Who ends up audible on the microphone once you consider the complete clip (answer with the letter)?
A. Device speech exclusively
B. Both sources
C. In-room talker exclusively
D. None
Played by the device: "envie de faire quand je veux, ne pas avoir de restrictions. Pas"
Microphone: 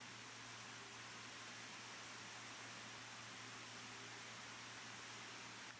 D